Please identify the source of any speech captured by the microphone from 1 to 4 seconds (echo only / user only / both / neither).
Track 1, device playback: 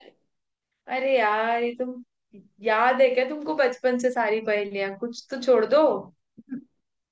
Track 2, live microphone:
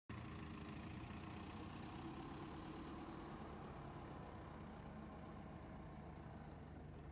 neither